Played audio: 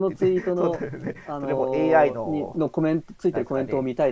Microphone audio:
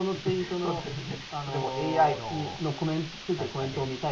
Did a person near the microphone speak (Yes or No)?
No